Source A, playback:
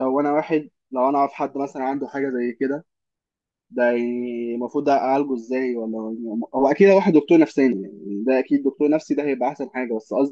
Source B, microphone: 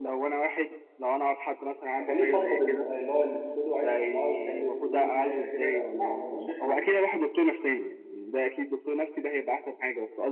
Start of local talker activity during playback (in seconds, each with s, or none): 2.0 s